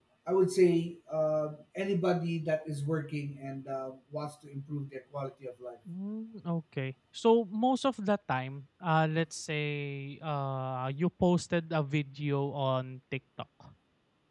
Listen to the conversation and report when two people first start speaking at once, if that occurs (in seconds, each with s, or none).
none